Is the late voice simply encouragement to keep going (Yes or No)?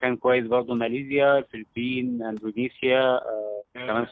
Yes